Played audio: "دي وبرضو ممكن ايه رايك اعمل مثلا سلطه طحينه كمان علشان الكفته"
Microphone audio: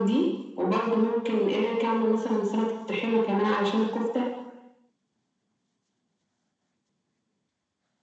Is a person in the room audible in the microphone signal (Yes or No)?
No